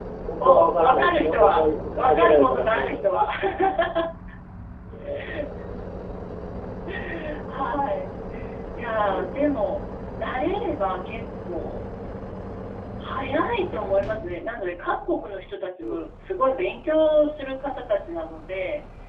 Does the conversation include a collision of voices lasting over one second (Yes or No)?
Yes